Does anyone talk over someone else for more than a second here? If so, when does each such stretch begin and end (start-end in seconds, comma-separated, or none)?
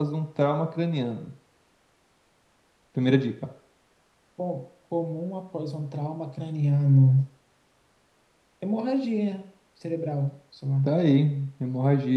none